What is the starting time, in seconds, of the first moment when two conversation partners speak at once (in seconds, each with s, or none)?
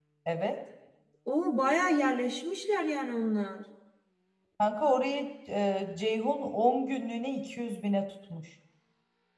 none